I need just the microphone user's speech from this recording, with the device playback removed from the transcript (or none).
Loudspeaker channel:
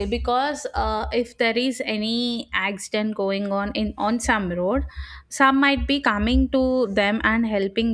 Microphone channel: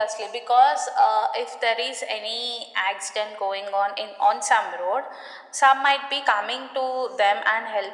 none